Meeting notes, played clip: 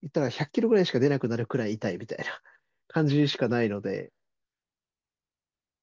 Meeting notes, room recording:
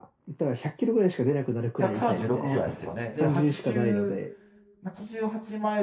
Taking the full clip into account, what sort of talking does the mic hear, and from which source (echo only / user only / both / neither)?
both